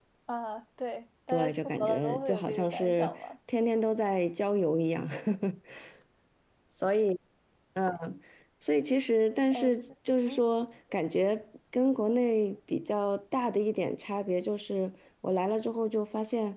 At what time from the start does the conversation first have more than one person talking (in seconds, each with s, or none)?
1.3 s